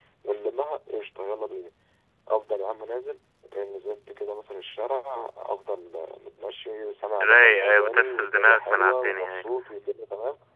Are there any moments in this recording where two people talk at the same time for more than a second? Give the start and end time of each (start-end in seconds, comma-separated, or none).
7.2-9.4